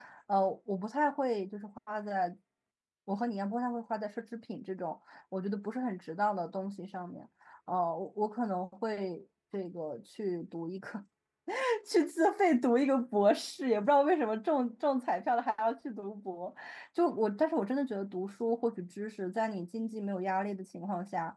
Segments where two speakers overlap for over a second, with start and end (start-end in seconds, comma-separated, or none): none